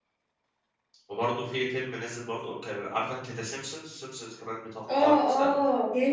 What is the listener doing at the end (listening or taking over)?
taking over